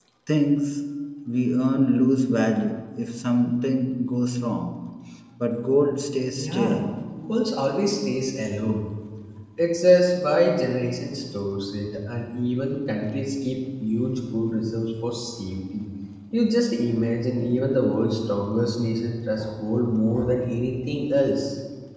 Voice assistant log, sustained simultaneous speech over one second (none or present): none